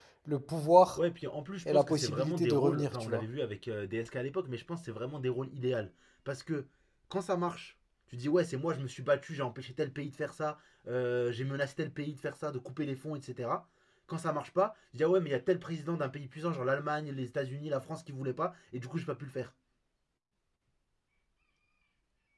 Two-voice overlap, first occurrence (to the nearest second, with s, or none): 2 s